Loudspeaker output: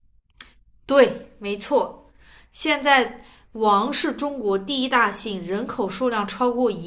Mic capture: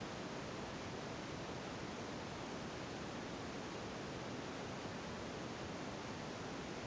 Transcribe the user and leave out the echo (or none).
none